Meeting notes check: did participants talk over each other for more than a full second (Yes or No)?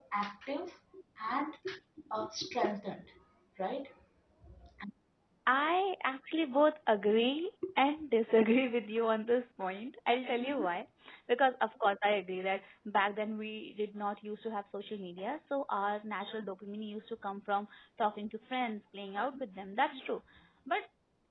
No